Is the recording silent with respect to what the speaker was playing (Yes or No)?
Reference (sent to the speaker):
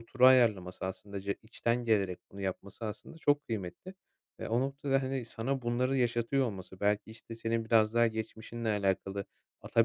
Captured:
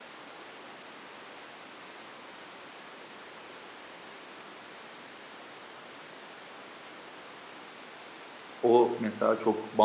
Yes